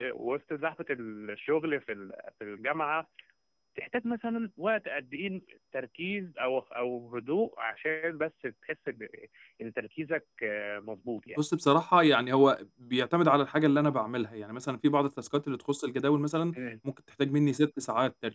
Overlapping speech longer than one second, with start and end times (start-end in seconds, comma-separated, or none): none